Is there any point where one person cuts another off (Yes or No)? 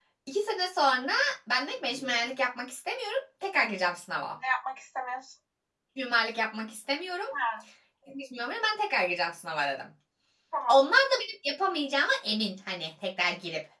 No